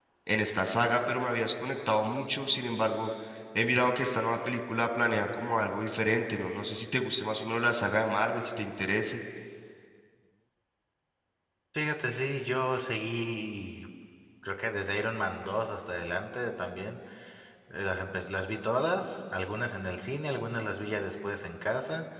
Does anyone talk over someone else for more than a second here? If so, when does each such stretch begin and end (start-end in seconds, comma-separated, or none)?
none